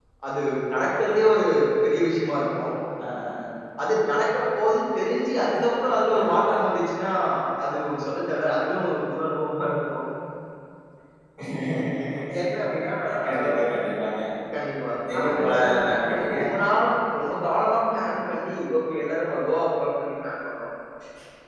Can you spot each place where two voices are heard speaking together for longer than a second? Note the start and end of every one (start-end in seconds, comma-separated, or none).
15.1-16.4